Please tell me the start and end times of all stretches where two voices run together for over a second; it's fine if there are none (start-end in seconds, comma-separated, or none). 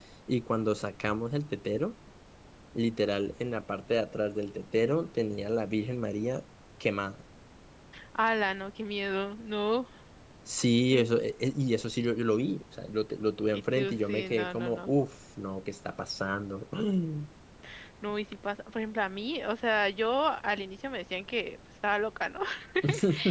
13.5-14.9